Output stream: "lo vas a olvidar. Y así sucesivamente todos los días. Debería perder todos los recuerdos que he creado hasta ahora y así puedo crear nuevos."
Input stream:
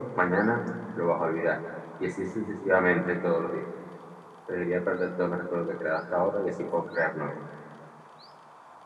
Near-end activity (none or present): none